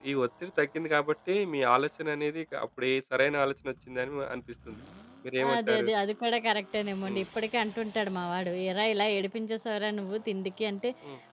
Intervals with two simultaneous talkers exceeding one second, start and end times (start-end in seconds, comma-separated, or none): none